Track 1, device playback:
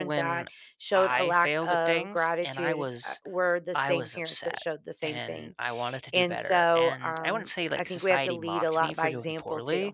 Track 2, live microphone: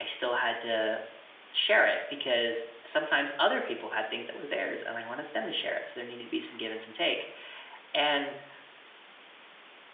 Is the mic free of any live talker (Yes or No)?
No